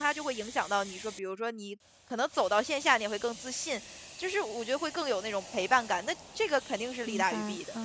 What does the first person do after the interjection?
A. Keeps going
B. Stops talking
B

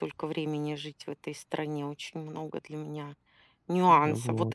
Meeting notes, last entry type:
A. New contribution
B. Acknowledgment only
B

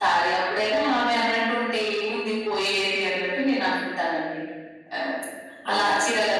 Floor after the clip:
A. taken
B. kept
B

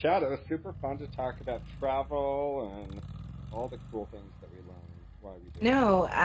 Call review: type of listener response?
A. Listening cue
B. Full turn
B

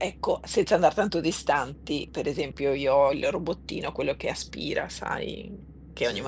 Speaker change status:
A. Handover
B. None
B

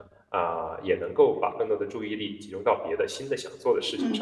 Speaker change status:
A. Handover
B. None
A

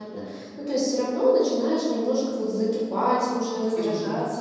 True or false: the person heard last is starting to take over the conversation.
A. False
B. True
A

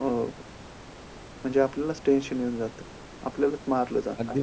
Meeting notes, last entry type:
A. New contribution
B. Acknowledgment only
A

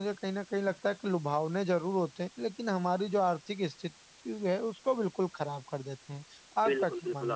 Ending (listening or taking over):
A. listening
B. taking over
B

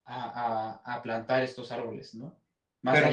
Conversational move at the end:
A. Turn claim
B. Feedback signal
A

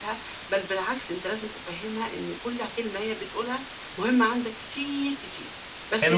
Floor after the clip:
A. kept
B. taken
B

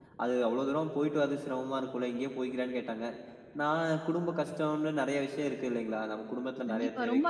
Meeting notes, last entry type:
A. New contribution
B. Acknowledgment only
A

